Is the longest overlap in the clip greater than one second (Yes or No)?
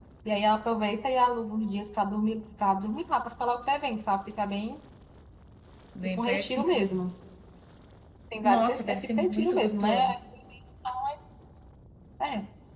Yes